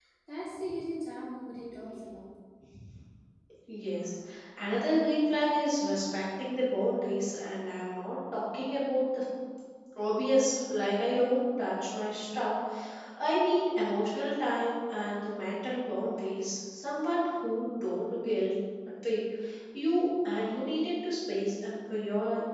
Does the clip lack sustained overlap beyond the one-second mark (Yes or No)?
Yes